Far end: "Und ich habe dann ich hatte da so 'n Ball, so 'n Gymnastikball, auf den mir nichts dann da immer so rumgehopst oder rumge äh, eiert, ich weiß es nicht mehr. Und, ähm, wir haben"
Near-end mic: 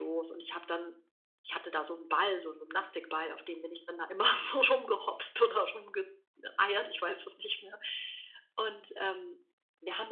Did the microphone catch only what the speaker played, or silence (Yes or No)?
Yes